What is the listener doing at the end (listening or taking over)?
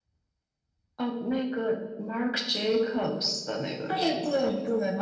taking over